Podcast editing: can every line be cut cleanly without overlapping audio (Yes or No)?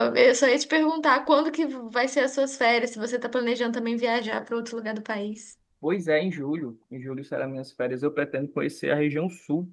Yes